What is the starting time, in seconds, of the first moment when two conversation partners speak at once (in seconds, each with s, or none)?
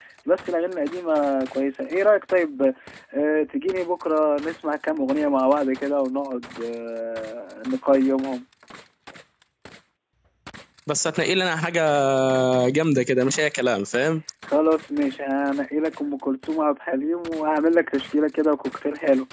none